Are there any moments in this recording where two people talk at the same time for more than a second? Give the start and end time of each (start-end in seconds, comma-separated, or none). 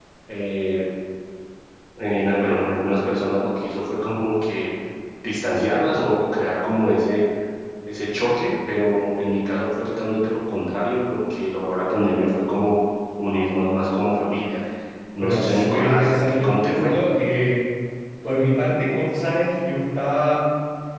15.2-17.0